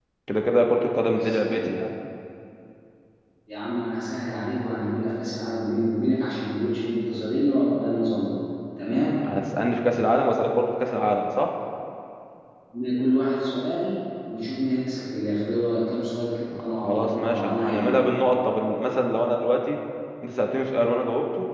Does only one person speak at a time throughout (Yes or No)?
No